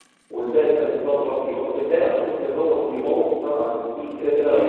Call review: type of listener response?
listening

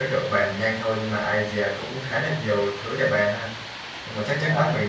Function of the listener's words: listening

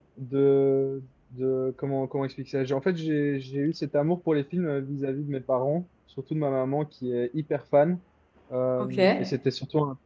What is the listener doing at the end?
listening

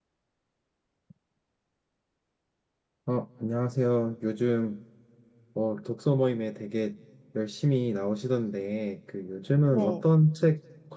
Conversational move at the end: listening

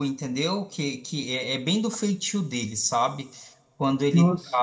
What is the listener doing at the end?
listening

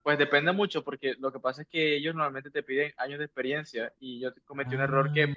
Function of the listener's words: listening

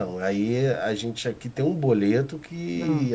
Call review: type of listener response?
listening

